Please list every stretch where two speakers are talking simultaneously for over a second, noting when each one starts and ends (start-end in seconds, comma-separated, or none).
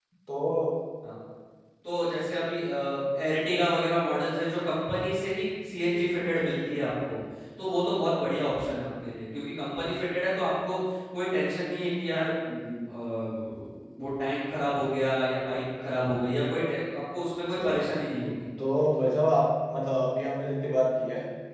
none